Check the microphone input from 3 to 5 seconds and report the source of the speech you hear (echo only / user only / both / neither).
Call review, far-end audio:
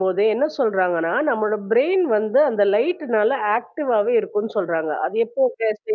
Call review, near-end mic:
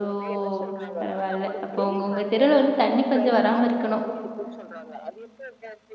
both